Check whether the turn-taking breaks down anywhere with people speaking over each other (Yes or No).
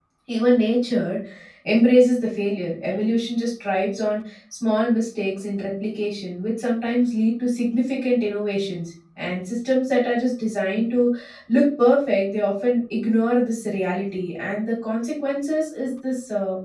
No